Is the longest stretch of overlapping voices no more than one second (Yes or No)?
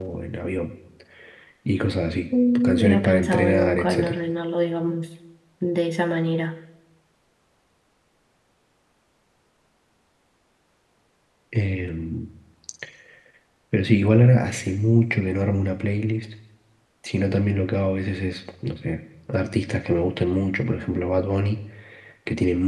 No